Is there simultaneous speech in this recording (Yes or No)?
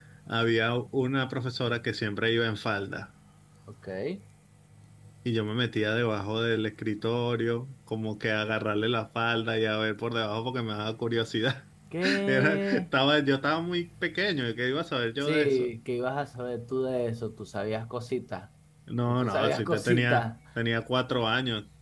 Yes